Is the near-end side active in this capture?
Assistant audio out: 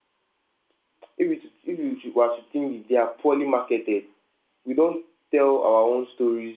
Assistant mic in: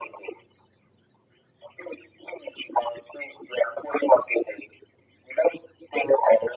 No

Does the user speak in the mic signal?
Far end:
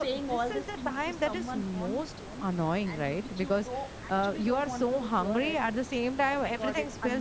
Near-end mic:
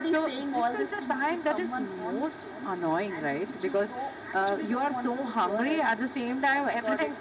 No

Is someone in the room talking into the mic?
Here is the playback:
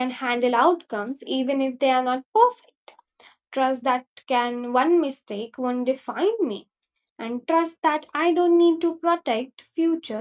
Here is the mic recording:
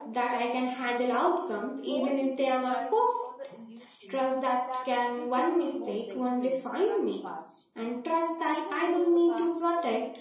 Yes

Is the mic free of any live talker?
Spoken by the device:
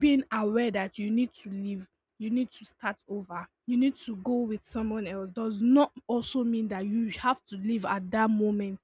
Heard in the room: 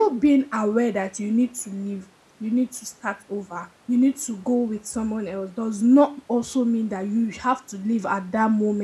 Yes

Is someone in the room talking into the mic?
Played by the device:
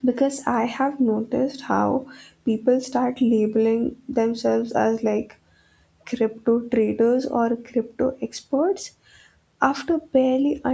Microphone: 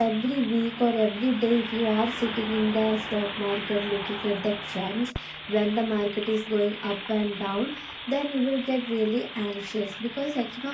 Yes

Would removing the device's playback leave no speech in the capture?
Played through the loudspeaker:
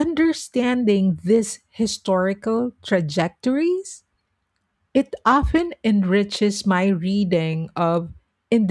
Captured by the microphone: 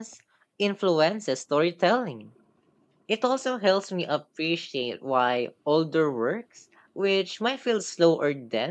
No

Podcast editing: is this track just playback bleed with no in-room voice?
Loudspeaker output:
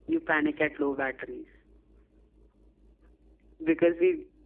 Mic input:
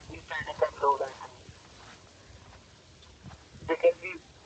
Yes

